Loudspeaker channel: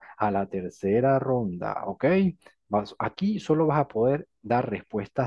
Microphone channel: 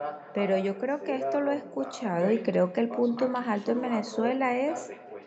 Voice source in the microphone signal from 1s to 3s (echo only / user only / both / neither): both